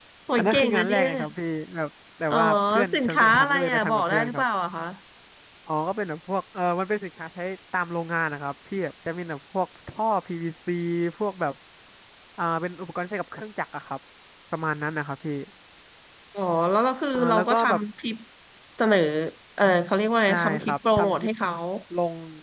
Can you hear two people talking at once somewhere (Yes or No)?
Yes